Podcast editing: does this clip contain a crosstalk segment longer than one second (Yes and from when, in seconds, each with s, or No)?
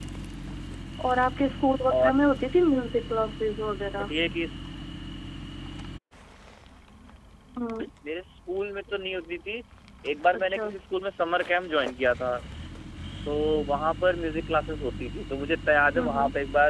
No